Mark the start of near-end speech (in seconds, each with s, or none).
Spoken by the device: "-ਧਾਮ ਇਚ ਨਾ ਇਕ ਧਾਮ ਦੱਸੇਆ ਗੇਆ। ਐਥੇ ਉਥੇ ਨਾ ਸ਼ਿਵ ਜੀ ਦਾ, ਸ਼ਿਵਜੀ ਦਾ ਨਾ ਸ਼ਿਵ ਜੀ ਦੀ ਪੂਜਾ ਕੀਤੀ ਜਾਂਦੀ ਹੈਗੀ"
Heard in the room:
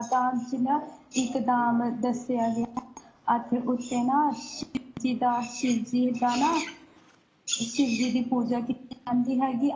none